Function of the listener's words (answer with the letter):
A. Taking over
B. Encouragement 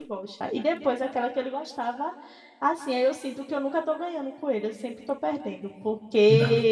B